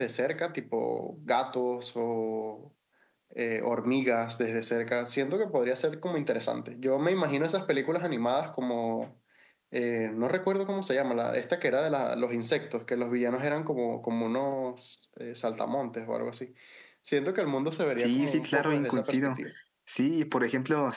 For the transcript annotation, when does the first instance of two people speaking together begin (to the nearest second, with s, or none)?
18 s